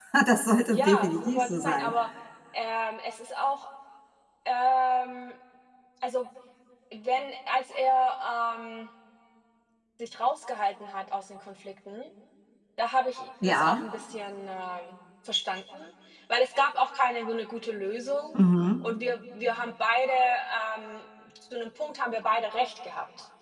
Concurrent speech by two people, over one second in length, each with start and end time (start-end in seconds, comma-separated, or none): 0.7-2.0